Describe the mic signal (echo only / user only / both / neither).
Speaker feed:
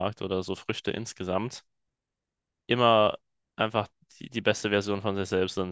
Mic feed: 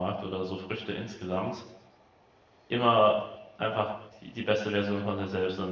echo only